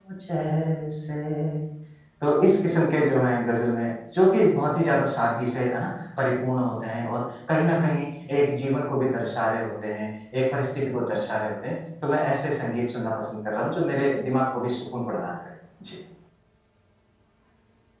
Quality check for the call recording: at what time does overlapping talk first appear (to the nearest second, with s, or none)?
none